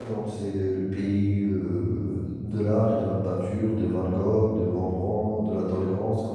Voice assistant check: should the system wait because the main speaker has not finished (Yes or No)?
Yes